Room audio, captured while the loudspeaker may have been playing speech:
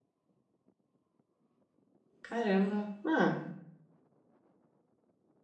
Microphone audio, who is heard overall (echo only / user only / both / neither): user only